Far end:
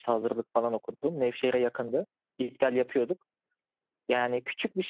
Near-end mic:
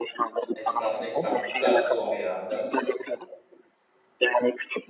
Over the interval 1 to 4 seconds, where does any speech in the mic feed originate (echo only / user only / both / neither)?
both